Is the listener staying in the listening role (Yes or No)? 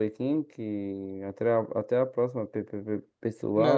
No